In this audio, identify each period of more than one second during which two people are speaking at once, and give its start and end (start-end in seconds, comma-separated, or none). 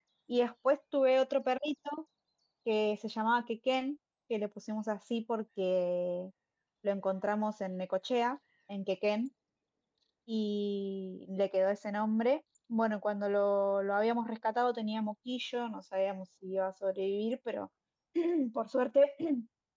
none